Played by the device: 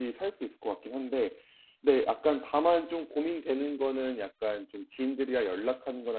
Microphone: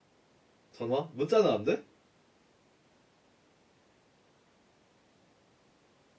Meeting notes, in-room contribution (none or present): present